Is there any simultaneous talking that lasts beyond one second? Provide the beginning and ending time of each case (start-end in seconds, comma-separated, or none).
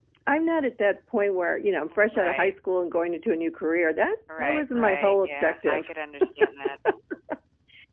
4.4-5.9